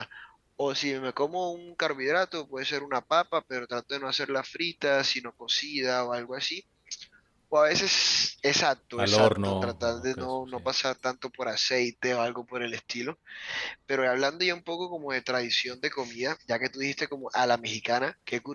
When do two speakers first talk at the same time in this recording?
9 s

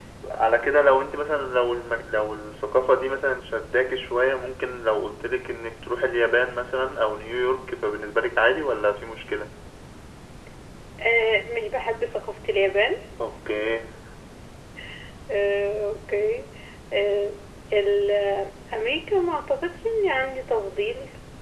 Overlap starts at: none

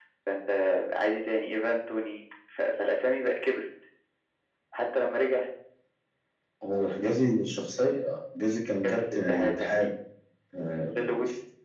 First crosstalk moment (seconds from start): 9 s

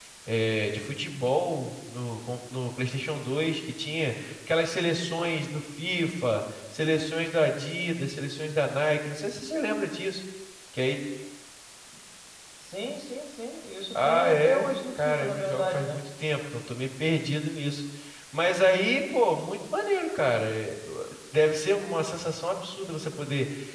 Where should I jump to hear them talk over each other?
14 s

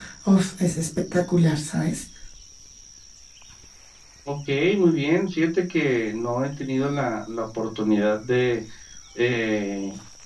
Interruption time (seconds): none

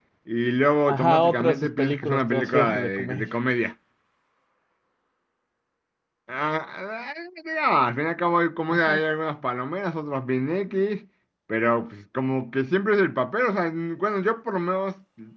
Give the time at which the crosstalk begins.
1 s

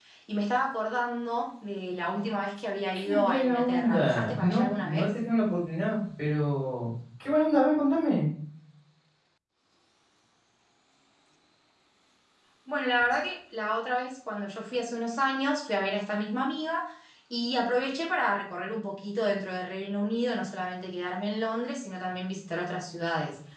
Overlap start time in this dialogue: 3 s

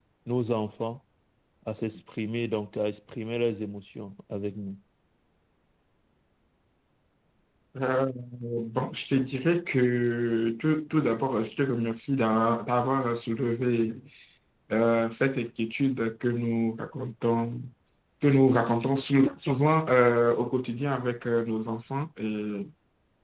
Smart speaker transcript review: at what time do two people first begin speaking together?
none

